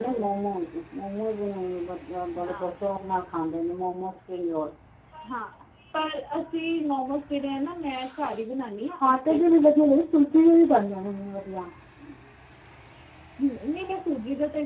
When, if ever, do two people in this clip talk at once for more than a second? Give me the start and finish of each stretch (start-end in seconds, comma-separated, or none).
none